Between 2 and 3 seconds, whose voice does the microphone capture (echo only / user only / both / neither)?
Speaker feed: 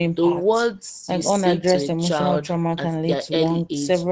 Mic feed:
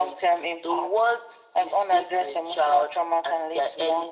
echo only